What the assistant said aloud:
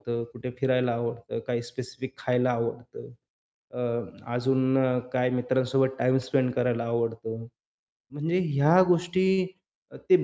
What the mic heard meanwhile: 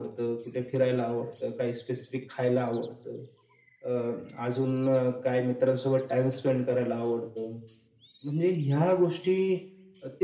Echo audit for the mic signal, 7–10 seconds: echo only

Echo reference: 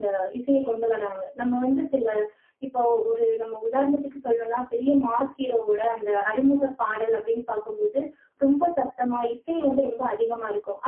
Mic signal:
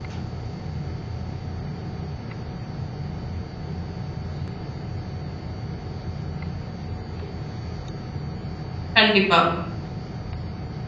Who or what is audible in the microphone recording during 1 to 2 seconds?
neither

